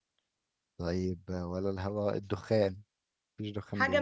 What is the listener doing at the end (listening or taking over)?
taking over